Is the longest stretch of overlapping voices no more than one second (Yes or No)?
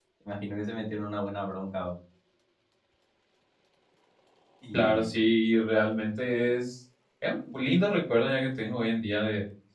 Yes